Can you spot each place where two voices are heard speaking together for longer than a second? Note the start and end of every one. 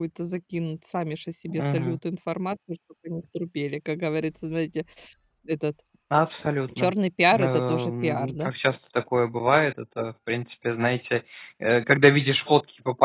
7.3-8.5

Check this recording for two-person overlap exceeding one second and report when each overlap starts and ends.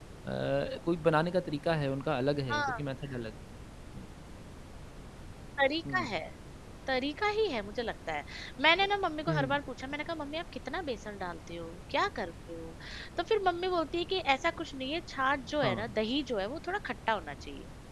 none

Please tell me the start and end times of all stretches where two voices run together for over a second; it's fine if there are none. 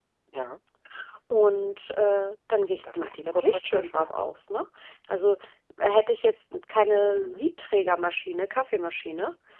2.9-4.1

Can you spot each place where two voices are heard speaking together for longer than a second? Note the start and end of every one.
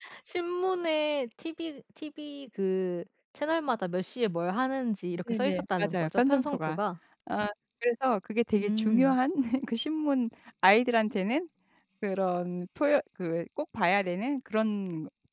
5.3-6.8

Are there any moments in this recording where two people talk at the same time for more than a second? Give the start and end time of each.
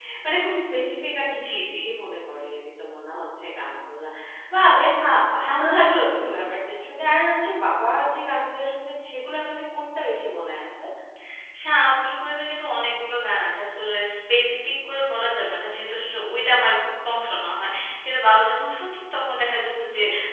none

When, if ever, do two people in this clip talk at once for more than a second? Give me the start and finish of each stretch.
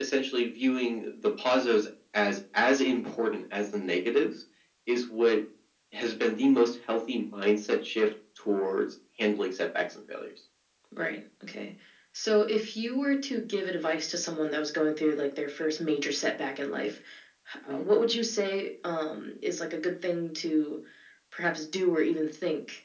none

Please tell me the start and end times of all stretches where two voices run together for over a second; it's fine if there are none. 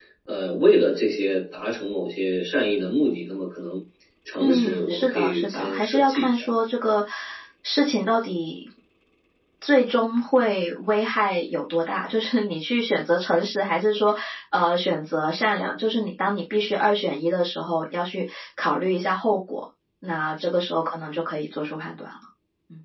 4.4-6.4

